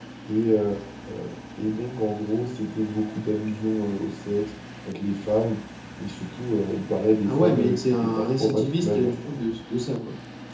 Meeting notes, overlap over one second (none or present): present